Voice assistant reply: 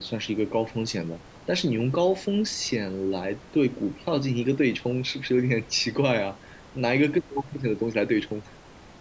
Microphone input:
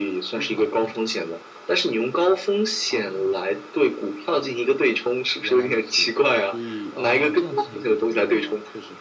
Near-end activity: present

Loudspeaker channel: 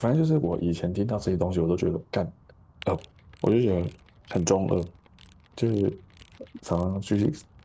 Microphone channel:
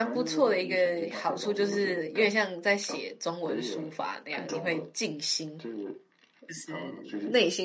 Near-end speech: present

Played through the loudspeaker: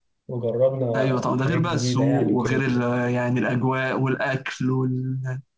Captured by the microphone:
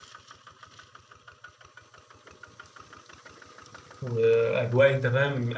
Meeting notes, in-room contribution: present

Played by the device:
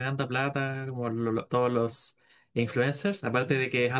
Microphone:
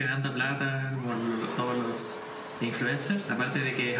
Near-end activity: none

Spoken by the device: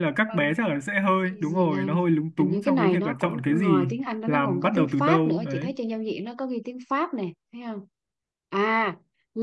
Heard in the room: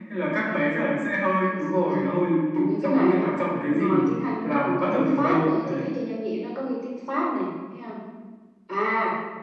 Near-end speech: none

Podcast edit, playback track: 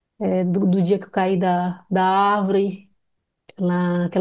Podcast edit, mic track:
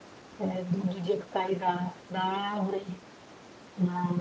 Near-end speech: none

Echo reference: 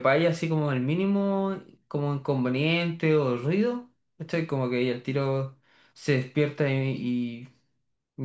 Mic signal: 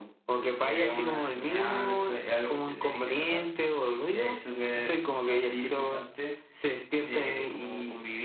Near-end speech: present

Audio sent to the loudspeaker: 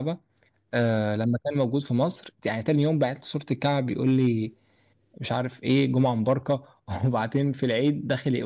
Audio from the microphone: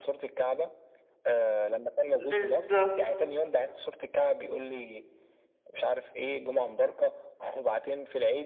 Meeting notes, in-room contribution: present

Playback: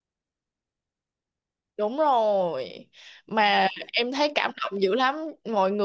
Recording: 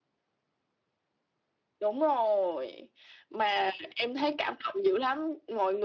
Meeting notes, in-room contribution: none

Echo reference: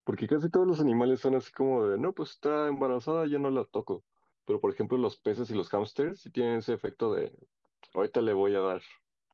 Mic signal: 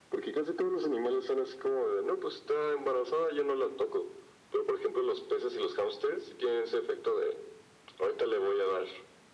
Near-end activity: none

